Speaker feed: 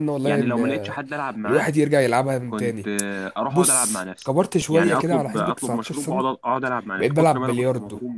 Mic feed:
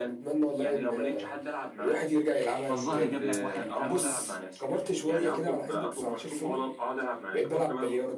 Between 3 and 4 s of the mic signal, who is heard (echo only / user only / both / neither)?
both